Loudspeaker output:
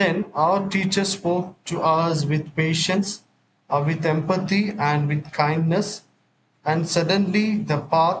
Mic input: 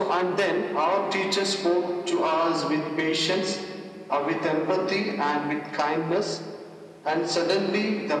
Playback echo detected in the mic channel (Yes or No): Yes